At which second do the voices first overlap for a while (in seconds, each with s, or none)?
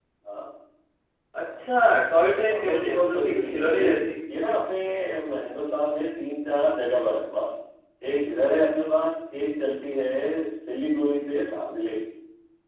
2.5 s